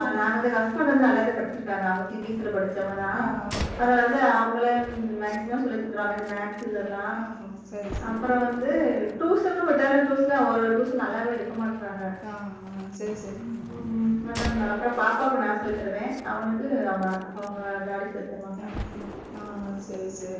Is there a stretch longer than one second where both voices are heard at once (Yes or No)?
No